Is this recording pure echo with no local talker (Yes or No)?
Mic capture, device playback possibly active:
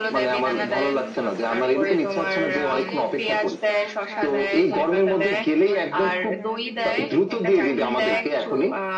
No